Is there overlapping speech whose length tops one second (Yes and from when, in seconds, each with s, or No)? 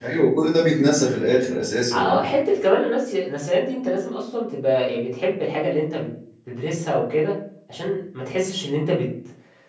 No